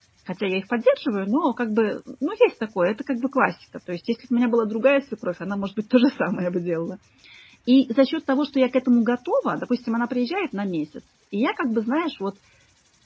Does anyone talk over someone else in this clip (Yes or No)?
No